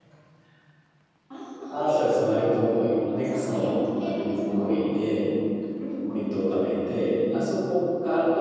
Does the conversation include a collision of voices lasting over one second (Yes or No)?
Yes